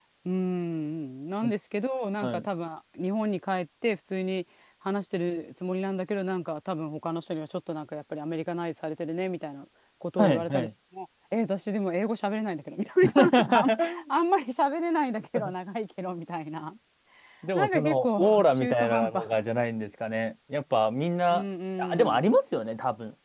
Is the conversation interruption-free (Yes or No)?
No